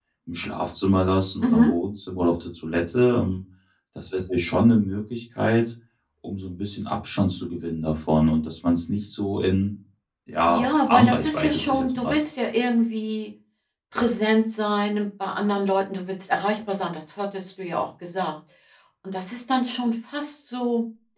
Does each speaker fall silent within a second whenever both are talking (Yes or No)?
No